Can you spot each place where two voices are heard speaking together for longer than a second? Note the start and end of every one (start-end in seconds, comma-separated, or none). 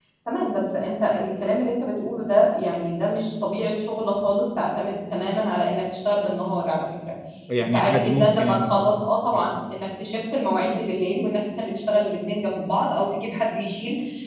7.6-8.9